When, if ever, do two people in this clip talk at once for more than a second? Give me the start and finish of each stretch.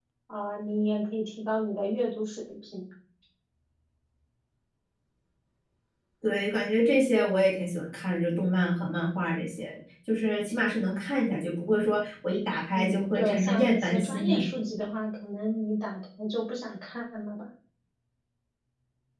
12.7-14.5

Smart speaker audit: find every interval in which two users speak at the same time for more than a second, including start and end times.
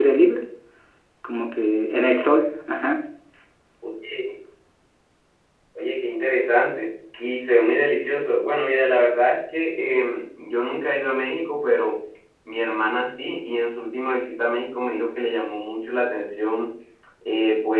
none

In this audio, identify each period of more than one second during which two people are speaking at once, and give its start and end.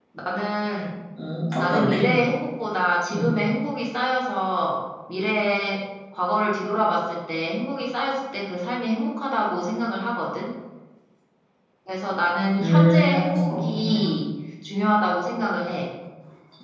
12.6-13.8

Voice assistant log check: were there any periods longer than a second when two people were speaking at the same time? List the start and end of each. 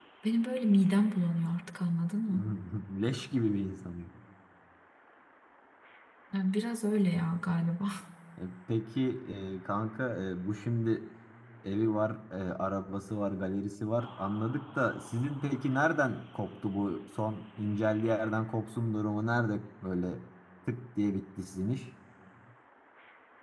none

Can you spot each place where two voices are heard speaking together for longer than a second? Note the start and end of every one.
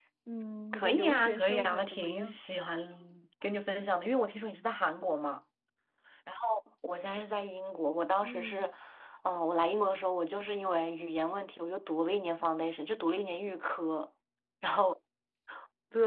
0.7-2.4

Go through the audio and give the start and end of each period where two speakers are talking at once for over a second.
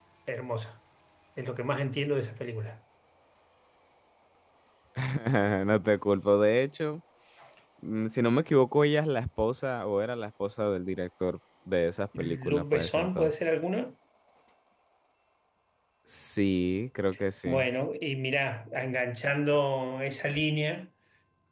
12.2-13.4

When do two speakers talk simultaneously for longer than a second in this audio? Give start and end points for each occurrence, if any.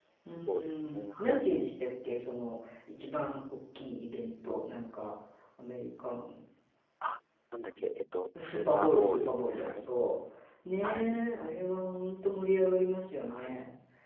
0.5-1.7, 8.4-9.9

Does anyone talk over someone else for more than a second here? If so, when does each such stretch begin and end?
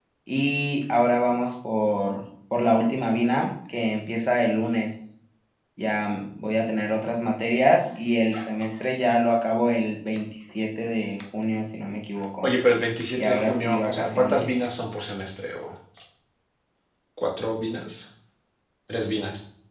13.2-14.7

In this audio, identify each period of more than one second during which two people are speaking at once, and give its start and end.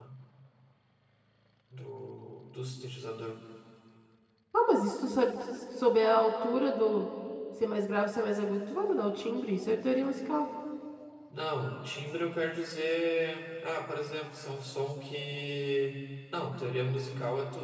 none

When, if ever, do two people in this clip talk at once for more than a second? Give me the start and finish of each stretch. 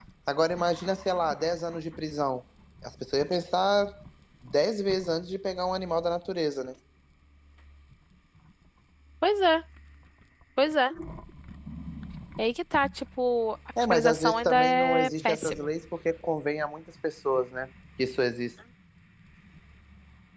13.8-15.7

